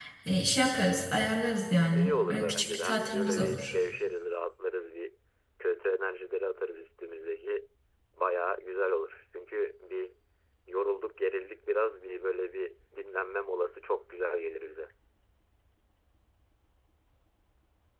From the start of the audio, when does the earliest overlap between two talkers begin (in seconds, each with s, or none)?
1.9 s